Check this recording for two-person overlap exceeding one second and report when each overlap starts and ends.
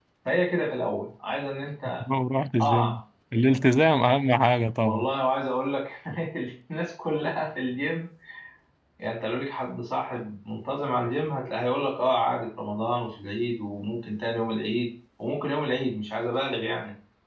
none

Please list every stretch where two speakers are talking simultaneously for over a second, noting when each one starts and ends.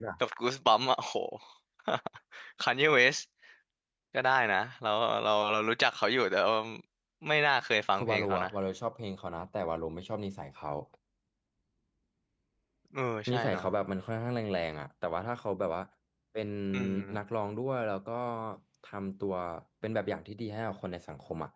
none

